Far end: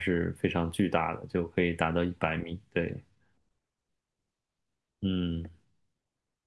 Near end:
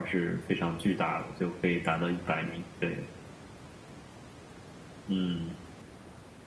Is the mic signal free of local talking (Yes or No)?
Yes